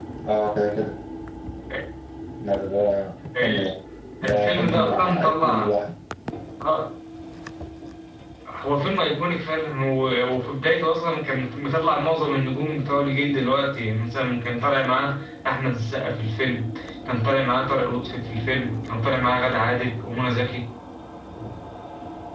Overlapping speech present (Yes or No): Yes